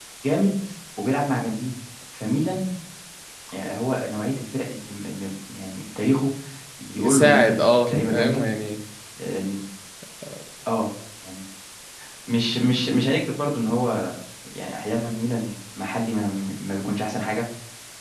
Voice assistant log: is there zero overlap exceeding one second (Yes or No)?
No